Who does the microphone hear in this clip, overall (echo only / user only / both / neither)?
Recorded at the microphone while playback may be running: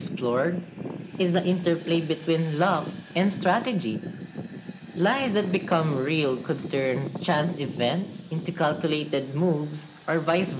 echo only